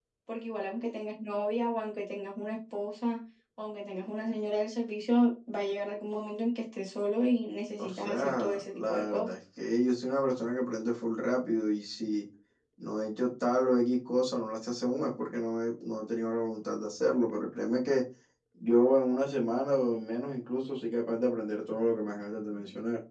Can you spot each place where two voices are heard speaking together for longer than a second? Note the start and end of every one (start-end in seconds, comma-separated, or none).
7.8-9.3